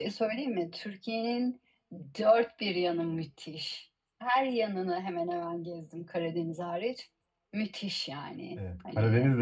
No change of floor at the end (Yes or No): No